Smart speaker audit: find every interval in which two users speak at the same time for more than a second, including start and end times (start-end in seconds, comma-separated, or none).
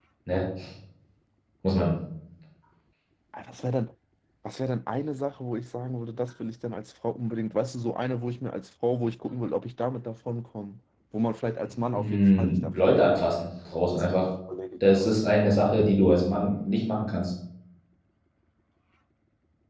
12.0-13.3